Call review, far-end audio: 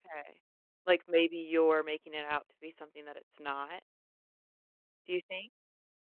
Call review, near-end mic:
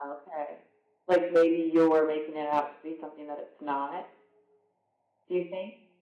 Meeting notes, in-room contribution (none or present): none